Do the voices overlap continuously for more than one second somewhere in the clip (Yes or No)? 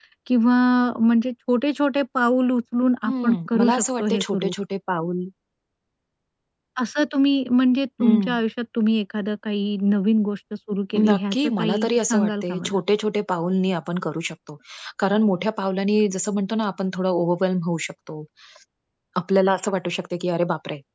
Yes